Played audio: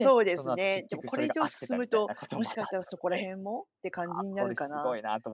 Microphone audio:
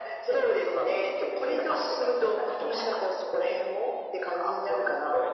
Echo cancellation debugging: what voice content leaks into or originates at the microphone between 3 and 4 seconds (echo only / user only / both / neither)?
echo only